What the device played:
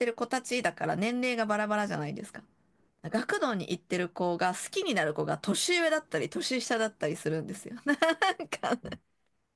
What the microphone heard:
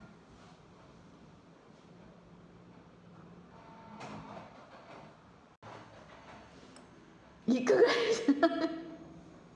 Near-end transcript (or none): いくぐらいじゃ。